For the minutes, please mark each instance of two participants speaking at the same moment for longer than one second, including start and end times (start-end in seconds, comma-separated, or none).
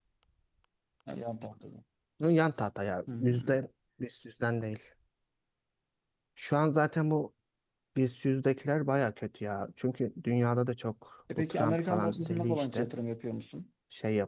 11.4-12.8